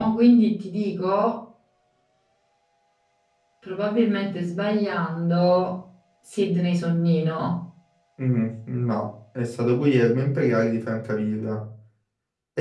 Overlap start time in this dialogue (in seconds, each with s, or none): none